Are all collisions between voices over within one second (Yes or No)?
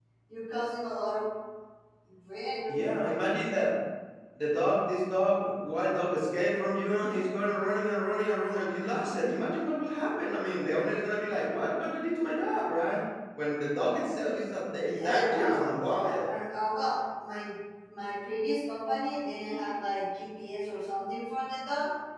No